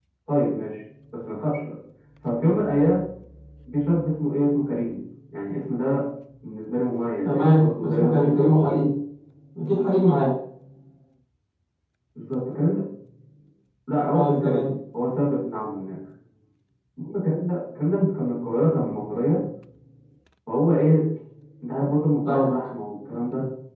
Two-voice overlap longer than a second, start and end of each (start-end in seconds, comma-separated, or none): 7.2-8.7